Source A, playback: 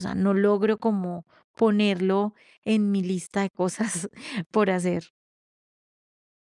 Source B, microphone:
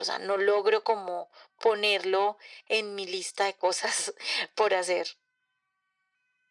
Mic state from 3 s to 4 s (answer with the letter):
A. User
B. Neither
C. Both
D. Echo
D